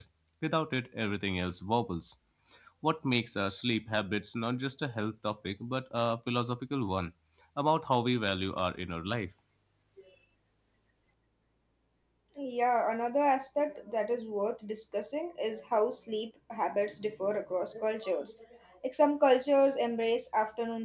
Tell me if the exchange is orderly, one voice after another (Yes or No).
Yes